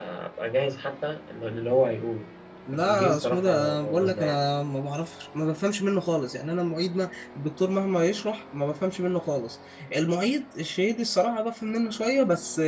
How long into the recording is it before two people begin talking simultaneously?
3 s

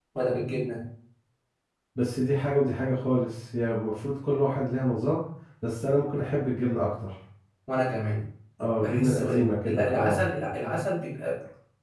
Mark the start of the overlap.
9 s

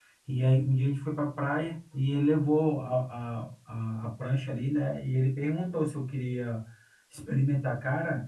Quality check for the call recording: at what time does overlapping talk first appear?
none

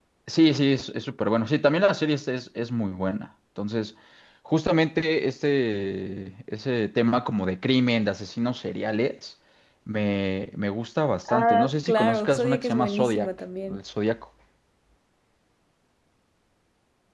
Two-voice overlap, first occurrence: 11 s

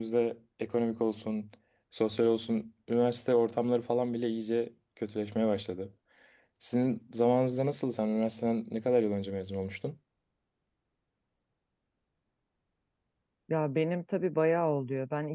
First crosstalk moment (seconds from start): none

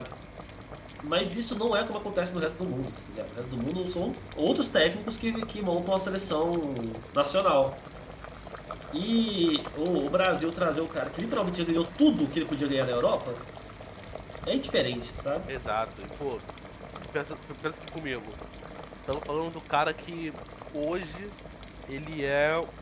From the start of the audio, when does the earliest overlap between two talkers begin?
none

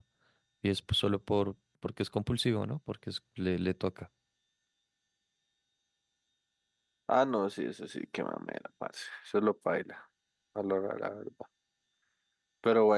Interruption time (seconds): none

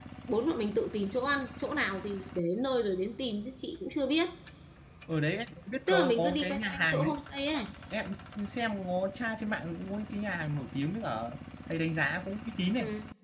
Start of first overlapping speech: 6 s

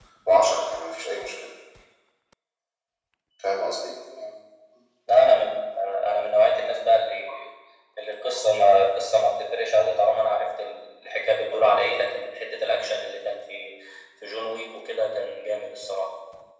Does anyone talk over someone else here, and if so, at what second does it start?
none

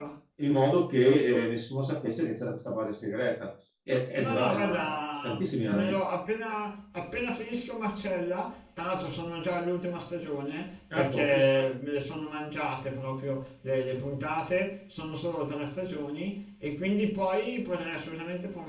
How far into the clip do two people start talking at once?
4 s

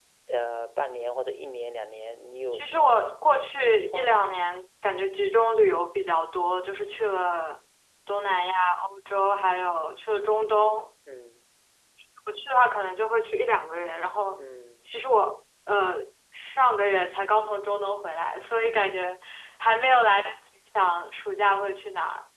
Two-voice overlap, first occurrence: 3 s

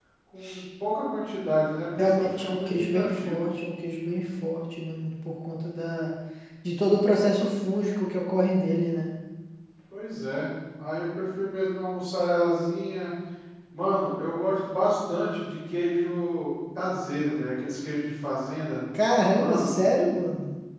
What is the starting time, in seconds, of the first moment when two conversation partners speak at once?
2 s

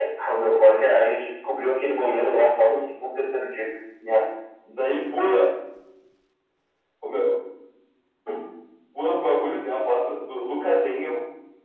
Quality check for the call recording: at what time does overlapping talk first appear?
none

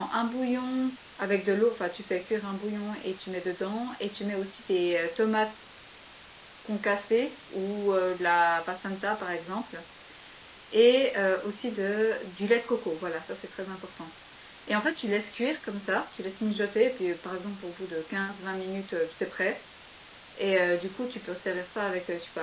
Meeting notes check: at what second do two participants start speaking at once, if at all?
none

